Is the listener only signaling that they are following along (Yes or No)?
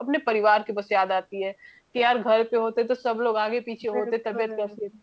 Yes